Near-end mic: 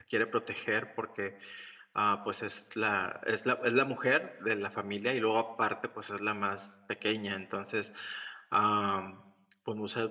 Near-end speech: present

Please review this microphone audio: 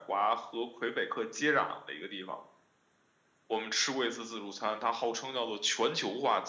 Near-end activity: none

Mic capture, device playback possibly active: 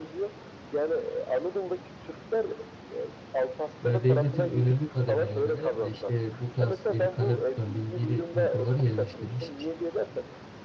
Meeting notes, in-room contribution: present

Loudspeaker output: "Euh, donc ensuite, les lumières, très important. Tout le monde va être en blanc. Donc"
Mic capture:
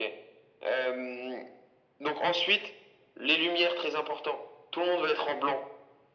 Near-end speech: none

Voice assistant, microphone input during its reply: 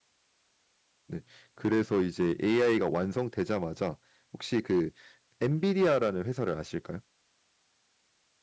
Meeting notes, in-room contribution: present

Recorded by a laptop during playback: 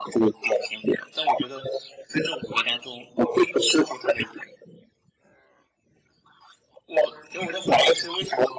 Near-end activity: none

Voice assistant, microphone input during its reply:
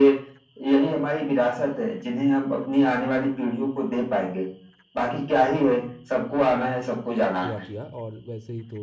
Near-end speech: present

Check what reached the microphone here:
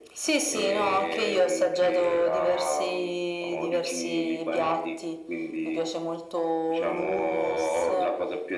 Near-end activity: none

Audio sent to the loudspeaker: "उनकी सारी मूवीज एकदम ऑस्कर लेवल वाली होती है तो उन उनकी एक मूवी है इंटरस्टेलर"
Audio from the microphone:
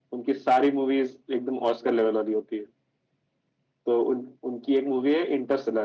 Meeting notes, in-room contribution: none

